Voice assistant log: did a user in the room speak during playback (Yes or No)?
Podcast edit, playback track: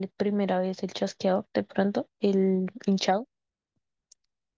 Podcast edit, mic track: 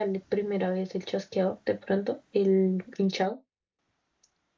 No